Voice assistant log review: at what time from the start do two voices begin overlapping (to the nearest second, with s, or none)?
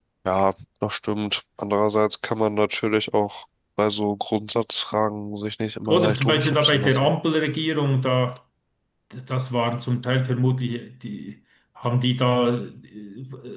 6 s